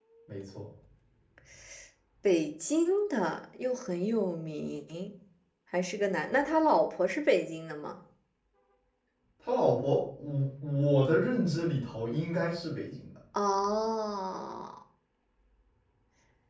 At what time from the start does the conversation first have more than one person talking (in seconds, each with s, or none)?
none